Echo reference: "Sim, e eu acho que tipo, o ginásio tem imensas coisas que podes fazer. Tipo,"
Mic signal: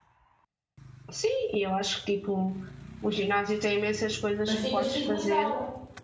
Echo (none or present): present